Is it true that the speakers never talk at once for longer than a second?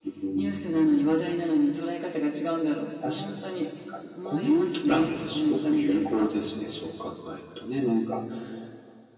No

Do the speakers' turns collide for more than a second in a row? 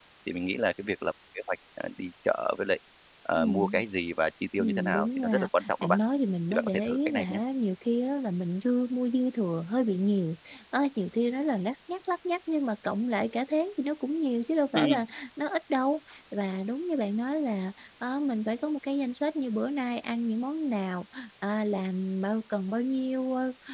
Yes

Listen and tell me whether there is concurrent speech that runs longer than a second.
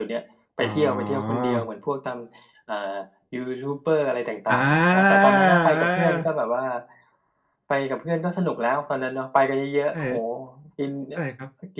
Yes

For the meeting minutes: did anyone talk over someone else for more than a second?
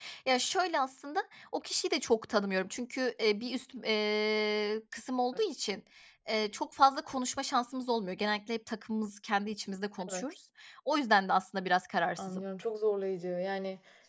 No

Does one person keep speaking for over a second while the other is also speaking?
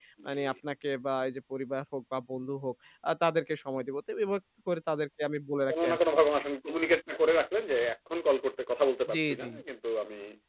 No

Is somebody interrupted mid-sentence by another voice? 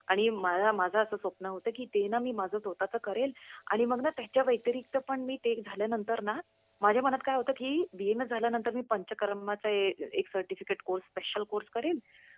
No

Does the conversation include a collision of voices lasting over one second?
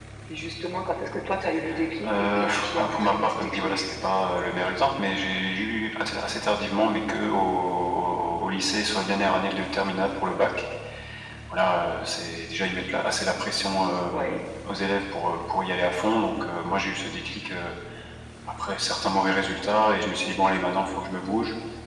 Yes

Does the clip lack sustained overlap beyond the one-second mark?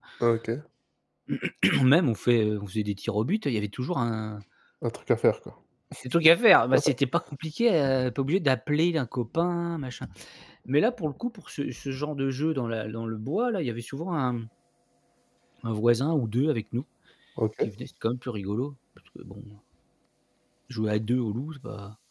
Yes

